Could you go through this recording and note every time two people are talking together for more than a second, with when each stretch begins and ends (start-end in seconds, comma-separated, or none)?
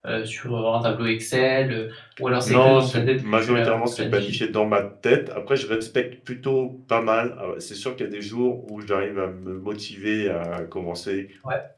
2.4-4.3